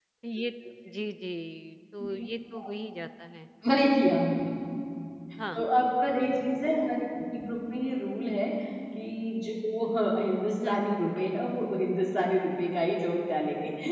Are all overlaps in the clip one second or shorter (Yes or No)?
Yes